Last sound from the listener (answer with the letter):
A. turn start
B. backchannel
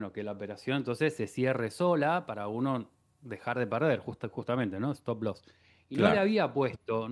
B